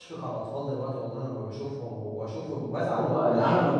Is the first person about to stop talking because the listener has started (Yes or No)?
Yes